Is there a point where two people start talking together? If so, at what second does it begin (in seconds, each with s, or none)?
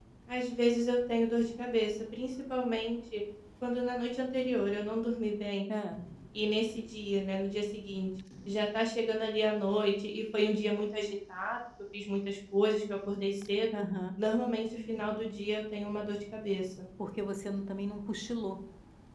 none